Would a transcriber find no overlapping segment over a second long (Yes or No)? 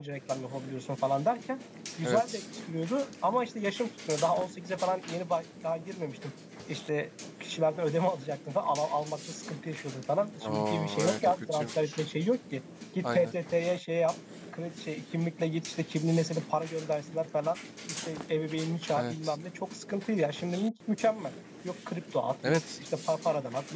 No